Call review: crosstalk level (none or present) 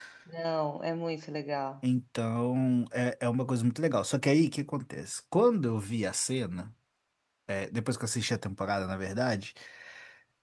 none